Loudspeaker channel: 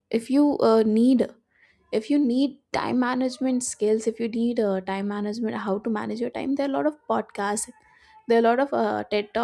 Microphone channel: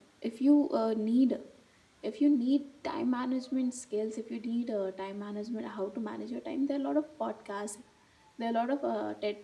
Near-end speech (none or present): none